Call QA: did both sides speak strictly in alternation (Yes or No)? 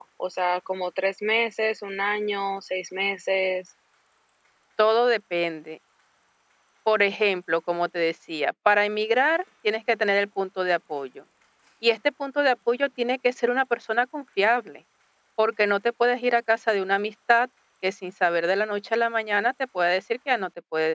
Yes